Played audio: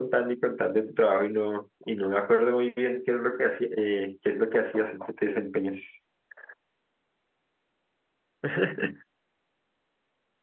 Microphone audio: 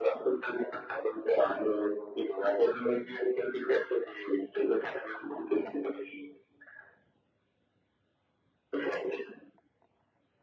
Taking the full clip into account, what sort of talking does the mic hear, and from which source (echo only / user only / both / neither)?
echo only